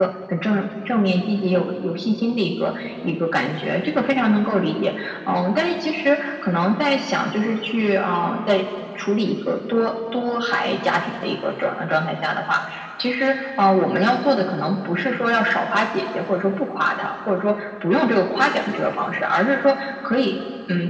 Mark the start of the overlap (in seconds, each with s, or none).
none